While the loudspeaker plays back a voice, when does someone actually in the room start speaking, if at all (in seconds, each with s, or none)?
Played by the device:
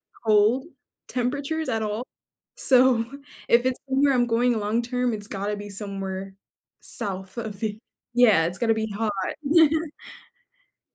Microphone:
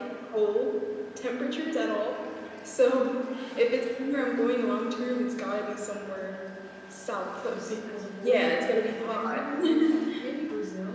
7.4 s